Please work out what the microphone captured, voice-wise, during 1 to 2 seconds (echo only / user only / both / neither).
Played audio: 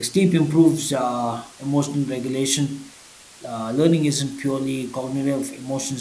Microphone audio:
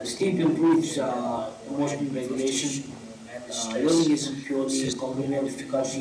both